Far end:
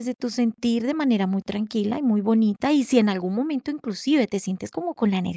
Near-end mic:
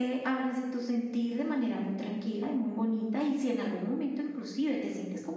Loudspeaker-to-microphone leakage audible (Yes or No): Yes